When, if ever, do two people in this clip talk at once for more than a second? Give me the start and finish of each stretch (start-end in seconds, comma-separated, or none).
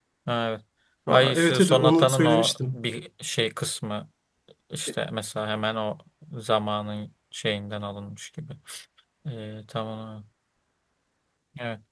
1.1-2.8